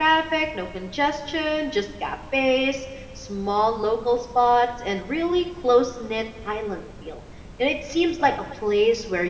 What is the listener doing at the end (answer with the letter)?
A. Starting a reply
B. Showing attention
B